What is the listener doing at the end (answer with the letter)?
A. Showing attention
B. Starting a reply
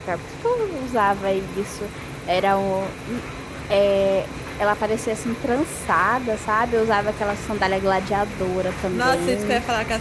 B